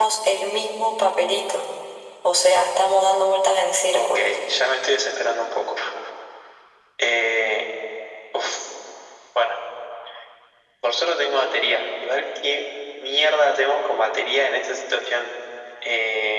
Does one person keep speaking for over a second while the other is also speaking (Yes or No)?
No